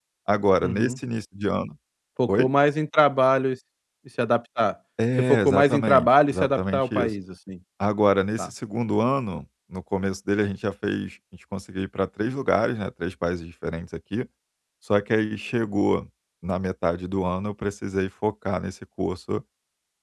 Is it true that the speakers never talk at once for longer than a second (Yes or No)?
No